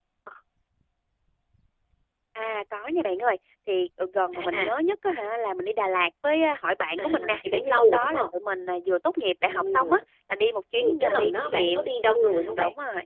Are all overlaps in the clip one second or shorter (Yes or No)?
No